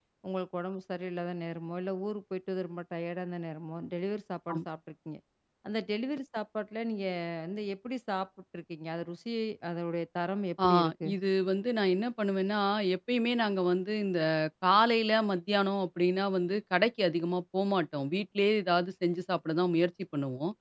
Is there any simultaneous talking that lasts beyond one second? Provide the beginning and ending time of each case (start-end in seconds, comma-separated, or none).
none